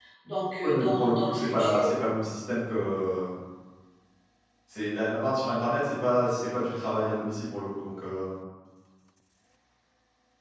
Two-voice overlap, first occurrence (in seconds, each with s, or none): 0.6 s